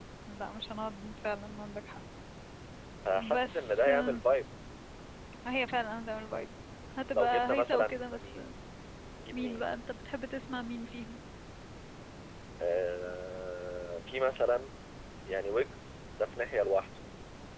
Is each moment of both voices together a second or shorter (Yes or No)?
No